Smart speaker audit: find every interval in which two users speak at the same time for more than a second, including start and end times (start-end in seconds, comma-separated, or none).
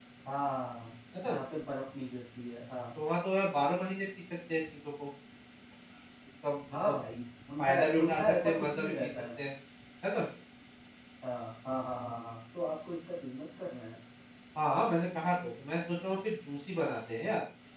7.6-9.1